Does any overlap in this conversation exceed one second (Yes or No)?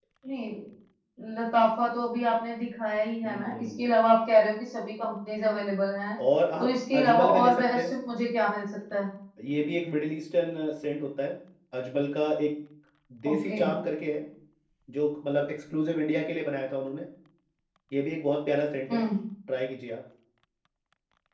Yes